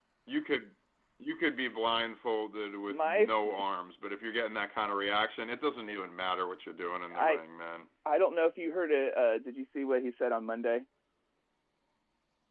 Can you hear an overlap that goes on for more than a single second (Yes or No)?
No